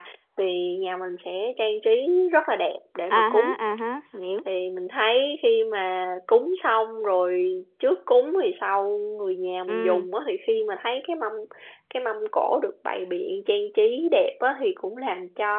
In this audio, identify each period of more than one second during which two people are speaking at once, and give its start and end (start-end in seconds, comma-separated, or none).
none